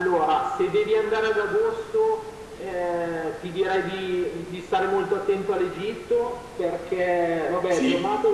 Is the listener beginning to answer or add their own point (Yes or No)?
No